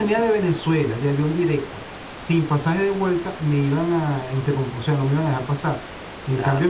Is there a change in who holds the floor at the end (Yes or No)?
No